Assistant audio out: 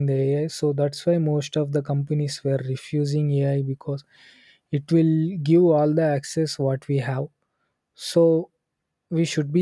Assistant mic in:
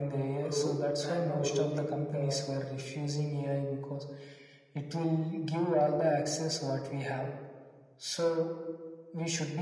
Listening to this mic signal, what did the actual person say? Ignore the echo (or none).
ru- and now ruling the